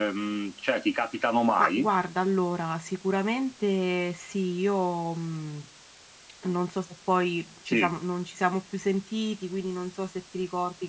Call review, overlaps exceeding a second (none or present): none